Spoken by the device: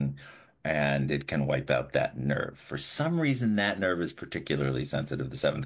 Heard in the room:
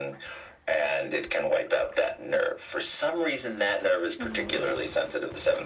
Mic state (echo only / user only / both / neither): both